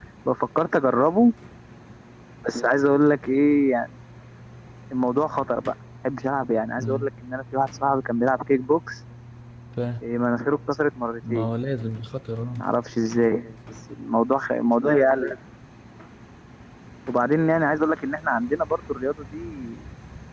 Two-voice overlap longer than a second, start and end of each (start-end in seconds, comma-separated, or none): none